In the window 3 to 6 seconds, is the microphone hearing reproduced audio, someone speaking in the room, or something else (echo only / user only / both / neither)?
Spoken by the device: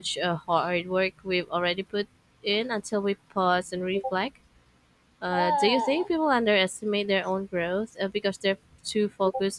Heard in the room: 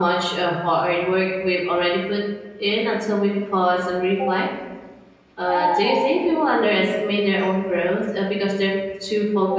echo only